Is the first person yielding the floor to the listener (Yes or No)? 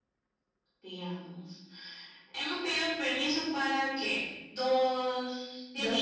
Yes